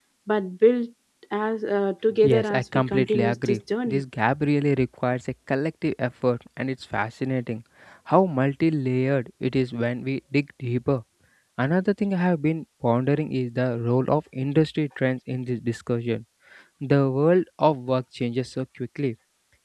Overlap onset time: 2.2 s

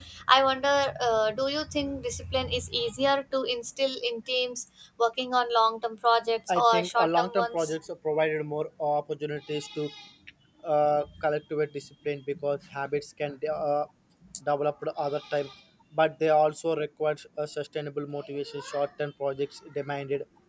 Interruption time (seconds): 6.5 s

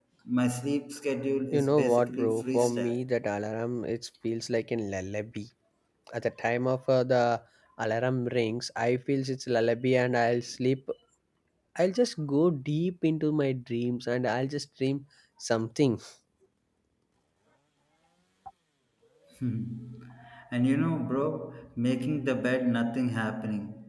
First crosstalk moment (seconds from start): 1.5 s

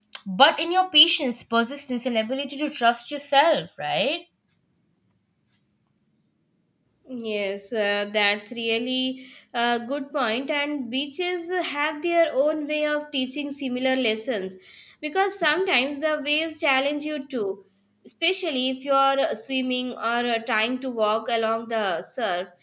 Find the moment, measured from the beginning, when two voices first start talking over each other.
none

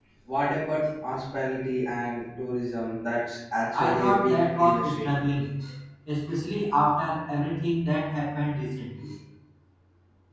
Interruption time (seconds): 3.7 s

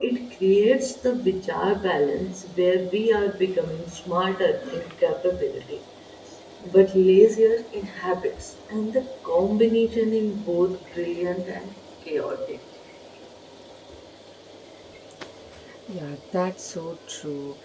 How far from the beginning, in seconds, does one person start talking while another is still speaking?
none

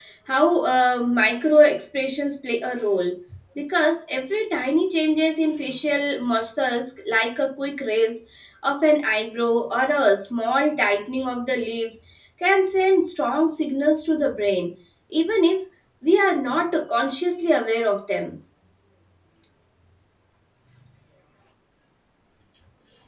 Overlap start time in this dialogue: none

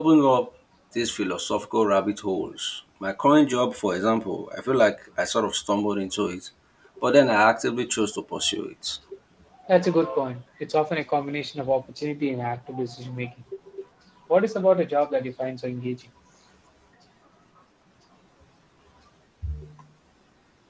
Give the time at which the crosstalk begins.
none

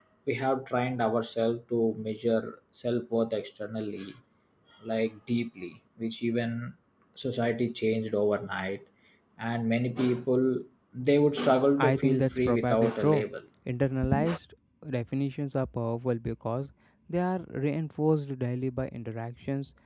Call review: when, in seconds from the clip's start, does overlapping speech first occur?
11.8 s

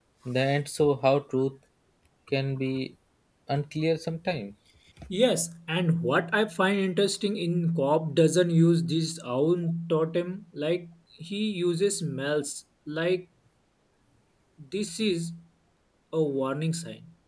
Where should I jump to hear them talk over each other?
none

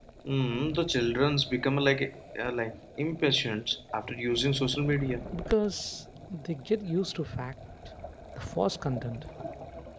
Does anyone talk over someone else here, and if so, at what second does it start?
none

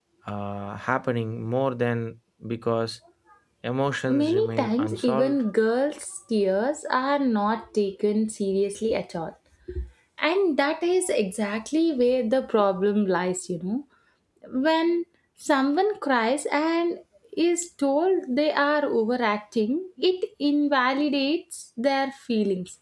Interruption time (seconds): 4.1 s

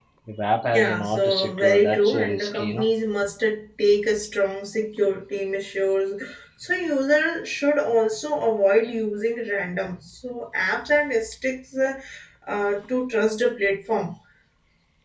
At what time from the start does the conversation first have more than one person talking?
0.7 s

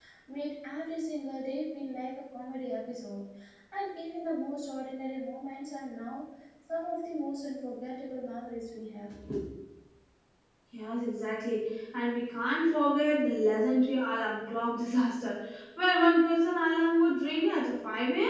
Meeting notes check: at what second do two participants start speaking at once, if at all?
none

